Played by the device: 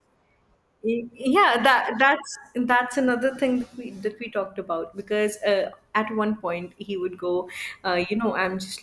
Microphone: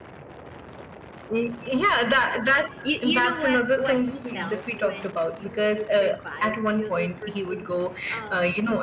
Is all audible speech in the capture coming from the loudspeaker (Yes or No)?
No